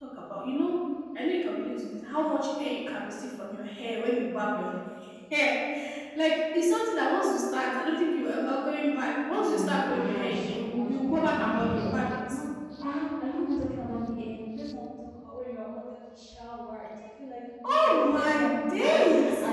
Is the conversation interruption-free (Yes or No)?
No